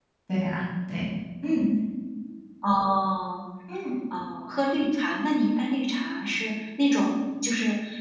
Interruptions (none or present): none